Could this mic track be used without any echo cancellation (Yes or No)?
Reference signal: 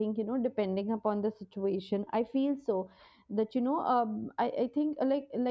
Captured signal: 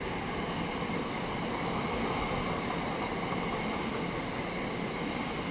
Yes